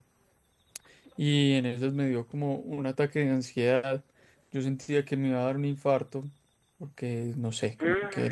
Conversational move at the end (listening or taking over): listening